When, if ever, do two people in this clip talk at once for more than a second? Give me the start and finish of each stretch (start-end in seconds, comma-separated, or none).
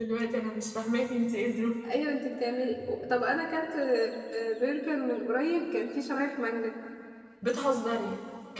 none